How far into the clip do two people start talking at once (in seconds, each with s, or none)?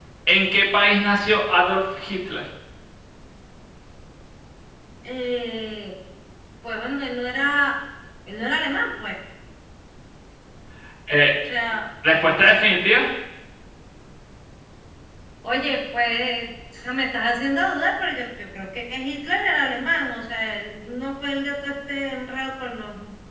none